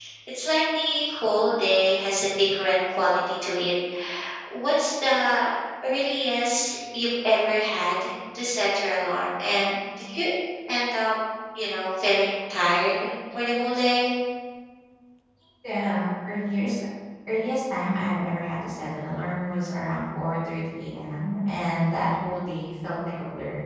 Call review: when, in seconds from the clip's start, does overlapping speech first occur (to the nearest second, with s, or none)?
none